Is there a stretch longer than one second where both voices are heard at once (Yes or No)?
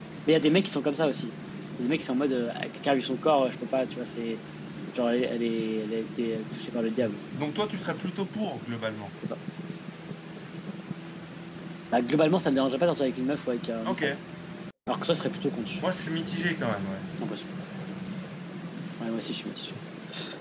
No